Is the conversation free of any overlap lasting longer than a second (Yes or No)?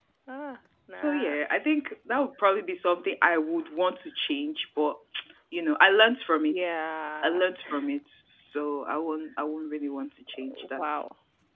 Yes